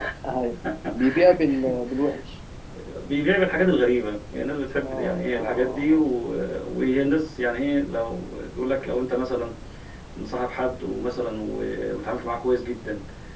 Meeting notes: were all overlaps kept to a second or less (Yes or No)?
No